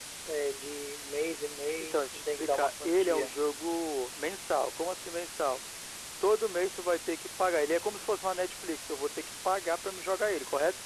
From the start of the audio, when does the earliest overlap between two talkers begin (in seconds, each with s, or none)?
1.8 s